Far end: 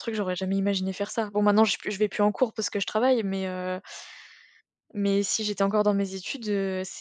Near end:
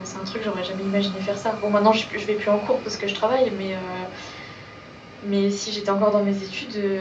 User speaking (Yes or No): No